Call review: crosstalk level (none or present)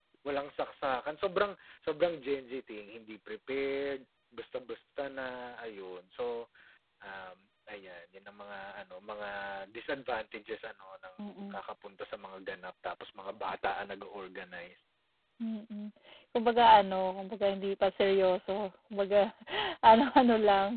none